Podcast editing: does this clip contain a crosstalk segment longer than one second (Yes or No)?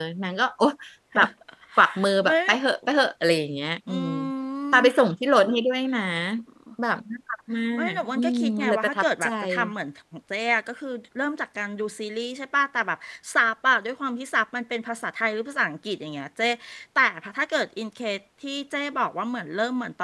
Yes